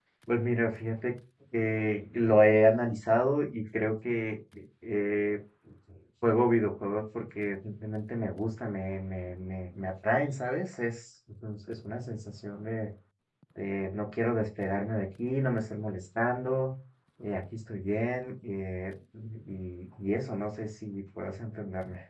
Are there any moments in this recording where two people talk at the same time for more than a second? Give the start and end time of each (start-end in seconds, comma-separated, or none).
none